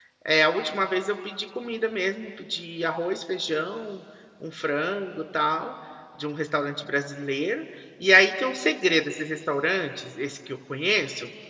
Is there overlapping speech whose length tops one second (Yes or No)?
No